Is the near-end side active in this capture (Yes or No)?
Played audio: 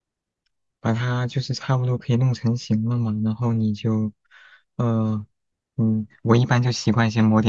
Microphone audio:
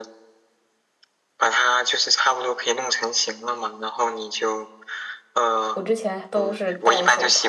Yes